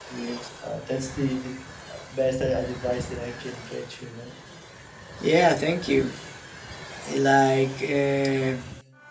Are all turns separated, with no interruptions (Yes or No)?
Yes